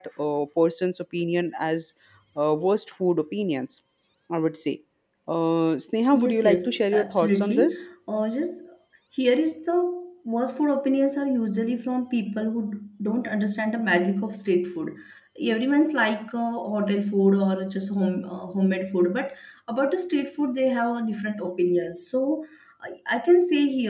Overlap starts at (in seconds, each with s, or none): 6.1 s